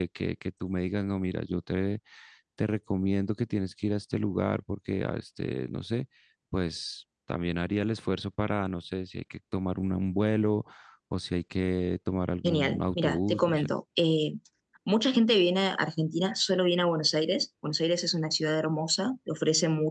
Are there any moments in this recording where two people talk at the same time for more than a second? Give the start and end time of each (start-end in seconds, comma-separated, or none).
12.4-13.7